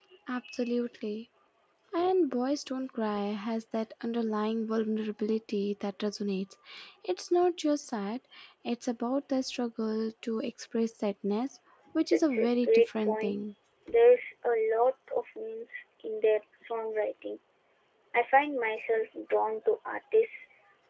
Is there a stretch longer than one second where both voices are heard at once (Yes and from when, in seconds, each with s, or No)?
Yes, from 12.1 s